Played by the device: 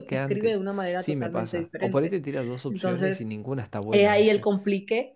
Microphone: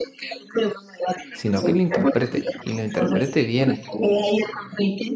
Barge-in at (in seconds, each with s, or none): 1.3 s